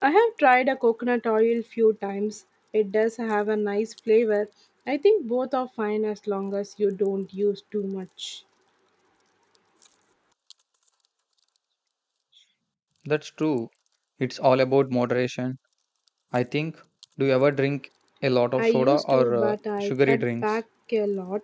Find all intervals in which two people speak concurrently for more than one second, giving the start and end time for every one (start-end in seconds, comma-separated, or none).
18.6-20.4